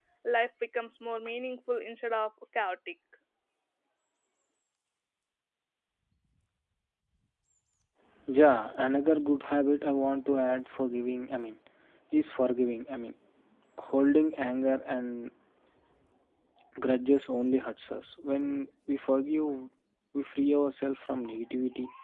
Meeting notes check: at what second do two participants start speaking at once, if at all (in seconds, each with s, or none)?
none